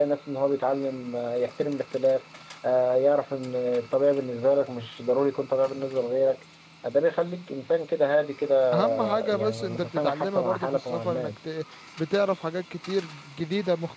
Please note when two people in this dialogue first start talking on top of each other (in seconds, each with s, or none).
8.9 s